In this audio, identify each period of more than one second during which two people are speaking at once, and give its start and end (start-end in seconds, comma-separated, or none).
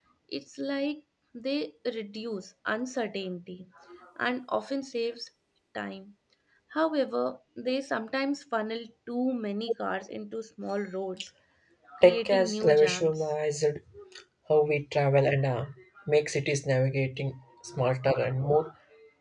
12.0-13.3